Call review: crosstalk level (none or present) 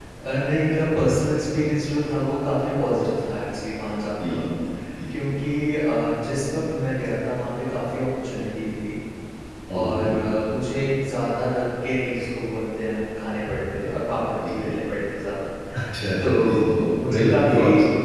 present